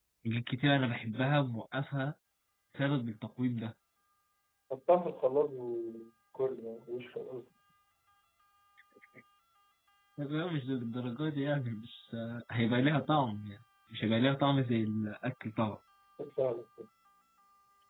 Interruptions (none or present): none